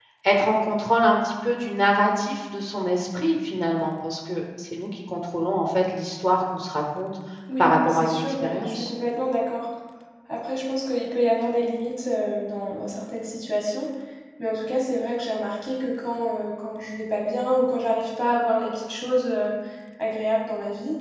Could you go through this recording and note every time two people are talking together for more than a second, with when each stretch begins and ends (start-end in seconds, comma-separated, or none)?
7.6-8.9